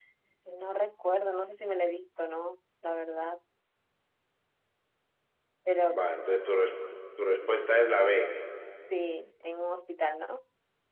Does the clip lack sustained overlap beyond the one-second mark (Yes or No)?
Yes